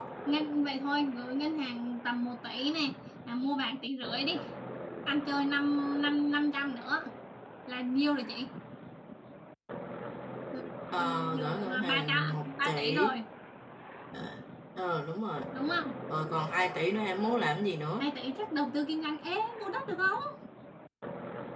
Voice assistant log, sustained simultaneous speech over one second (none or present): present